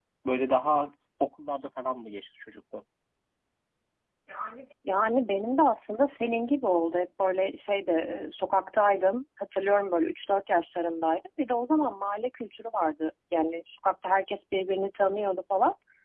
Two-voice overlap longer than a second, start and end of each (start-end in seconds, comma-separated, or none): none